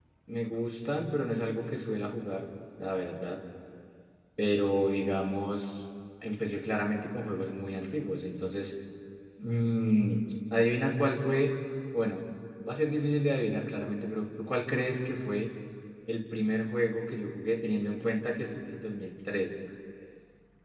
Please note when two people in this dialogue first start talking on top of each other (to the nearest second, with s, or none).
none